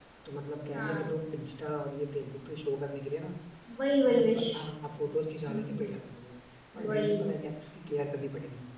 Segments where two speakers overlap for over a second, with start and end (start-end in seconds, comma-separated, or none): none